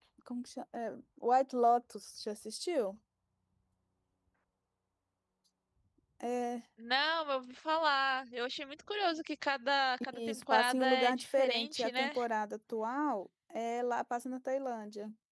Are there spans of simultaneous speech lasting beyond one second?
Yes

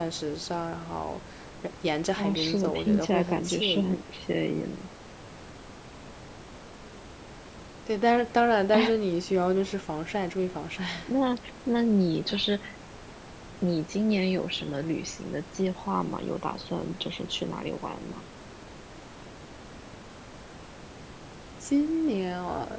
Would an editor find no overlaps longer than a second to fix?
No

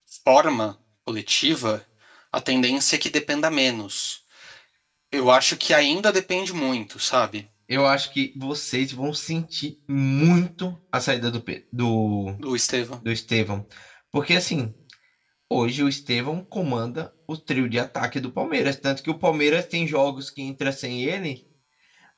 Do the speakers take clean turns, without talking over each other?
Yes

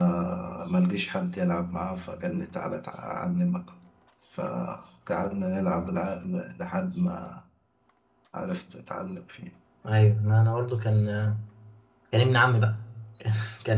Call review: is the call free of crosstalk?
Yes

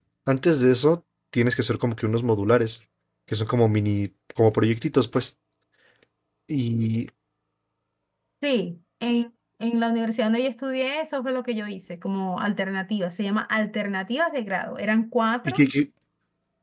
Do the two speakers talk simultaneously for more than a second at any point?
No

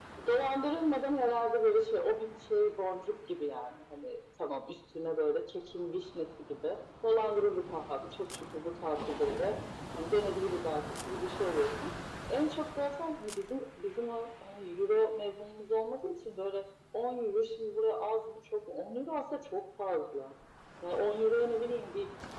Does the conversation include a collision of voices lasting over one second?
No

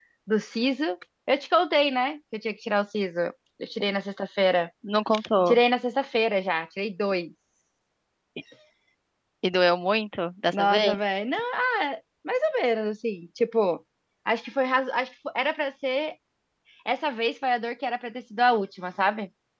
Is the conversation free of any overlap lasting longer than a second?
Yes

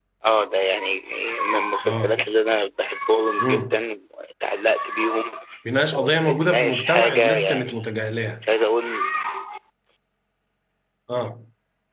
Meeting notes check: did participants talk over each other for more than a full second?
Yes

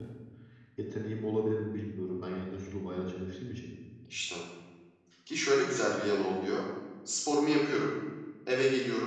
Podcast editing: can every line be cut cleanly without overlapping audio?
Yes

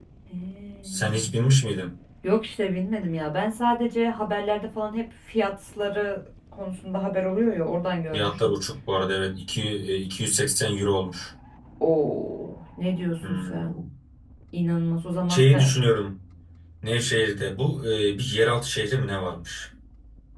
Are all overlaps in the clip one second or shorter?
Yes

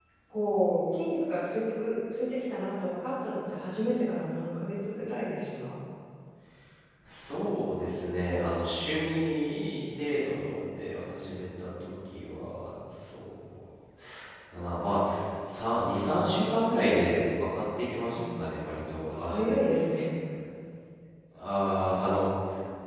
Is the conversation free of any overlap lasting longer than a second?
Yes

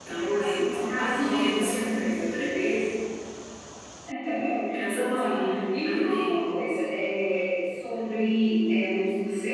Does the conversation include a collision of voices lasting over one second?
Yes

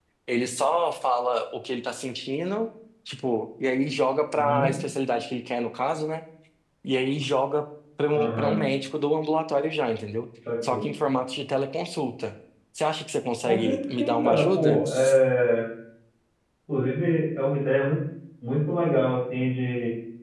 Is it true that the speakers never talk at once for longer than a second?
No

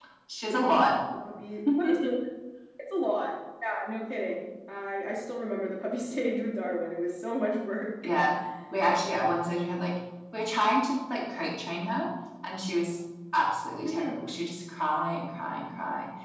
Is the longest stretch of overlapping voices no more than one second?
Yes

